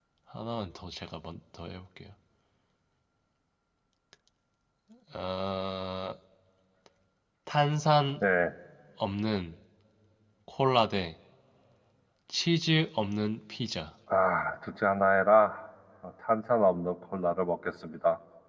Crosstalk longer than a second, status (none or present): none